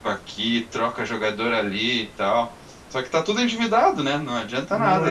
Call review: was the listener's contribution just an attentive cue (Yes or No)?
Yes